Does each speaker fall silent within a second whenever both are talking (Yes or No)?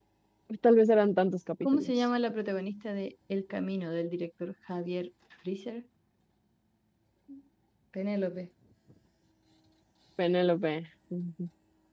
Yes